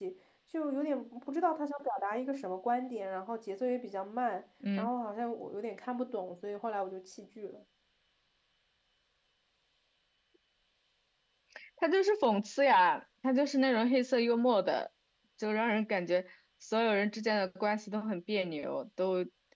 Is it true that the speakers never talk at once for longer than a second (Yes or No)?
Yes